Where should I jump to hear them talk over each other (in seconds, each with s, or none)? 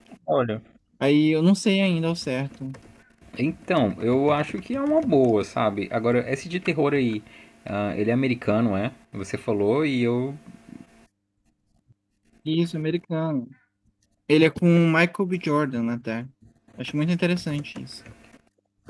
none